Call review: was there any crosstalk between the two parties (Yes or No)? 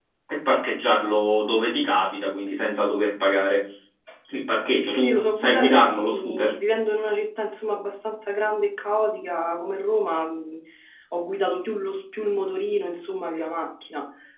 Yes